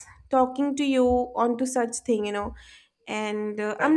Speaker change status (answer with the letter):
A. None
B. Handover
A